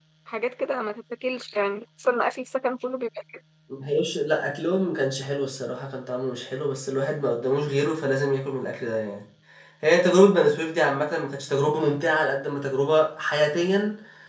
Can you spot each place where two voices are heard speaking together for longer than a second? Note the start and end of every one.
none

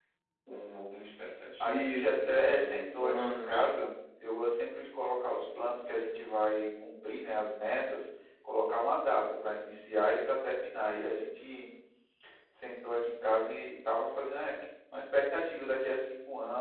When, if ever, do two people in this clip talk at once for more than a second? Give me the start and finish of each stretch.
1.6-3.6

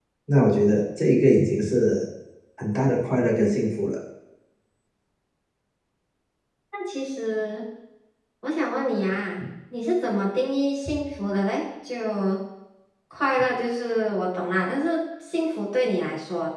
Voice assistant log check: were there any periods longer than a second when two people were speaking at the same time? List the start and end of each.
none

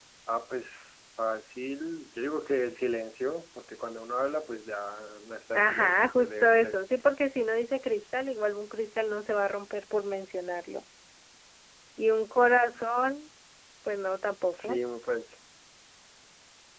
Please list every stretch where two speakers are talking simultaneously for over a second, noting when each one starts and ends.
5.5-6.8

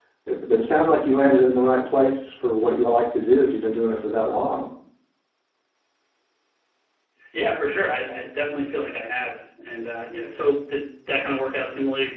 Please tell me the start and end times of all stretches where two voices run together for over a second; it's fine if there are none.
none

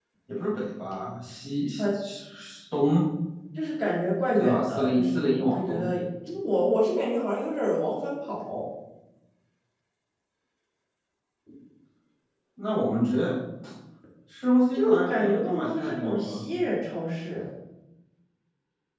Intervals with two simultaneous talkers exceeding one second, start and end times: 4.4-5.9, 14.7-16.4

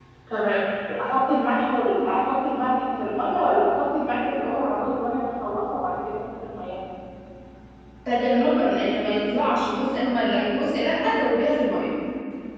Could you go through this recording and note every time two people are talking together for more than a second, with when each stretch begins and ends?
none

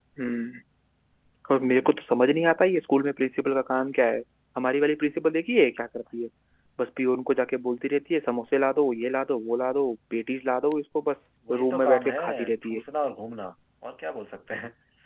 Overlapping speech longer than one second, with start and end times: 11.5-12.8

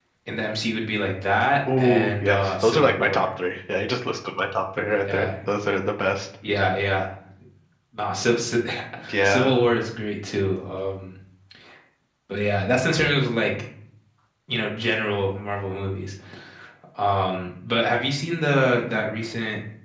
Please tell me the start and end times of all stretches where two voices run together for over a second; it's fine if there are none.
1.8-3.3

